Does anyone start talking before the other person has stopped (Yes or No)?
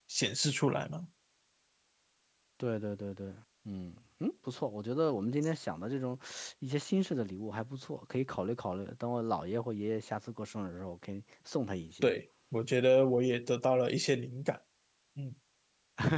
No